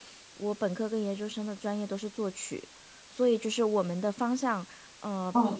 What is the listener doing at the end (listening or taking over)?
listening